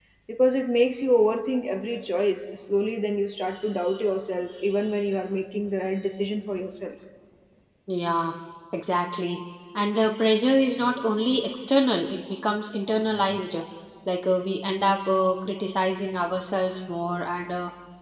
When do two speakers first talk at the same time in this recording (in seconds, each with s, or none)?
none